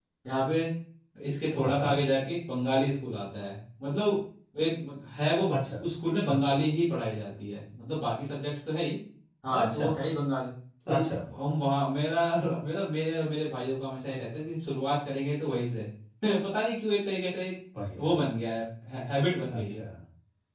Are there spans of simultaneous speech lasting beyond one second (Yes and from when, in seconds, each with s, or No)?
No